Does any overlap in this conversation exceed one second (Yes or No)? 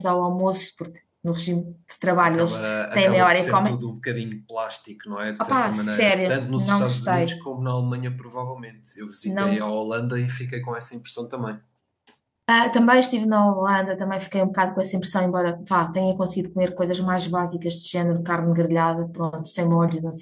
Yes